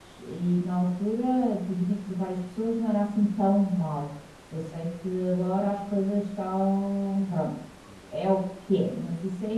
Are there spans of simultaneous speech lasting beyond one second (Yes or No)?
No